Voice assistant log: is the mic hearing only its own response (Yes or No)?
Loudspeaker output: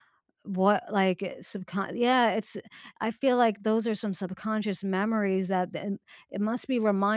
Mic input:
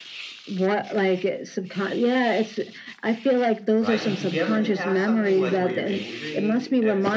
No